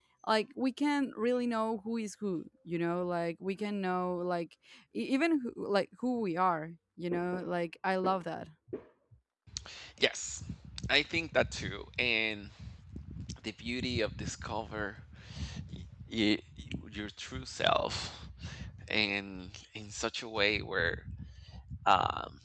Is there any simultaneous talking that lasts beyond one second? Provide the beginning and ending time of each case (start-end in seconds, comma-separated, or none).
none